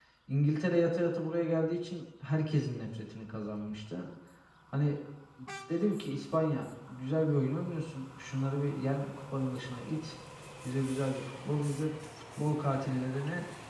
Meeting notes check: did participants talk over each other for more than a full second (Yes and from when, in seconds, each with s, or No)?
No